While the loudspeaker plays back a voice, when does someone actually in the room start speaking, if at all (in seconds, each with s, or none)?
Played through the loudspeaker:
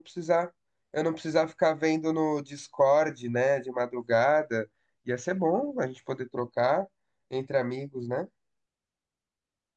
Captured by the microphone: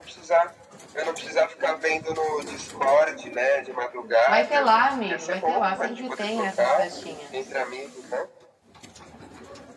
4.2 s